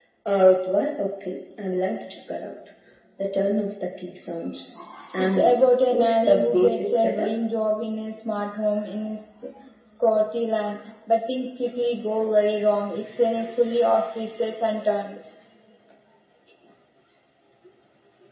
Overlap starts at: 5.2 s

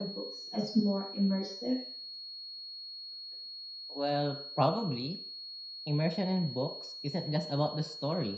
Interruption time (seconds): none

